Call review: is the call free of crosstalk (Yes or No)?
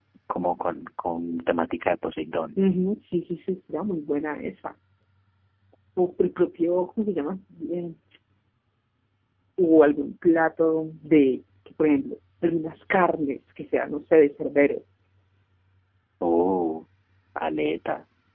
Yes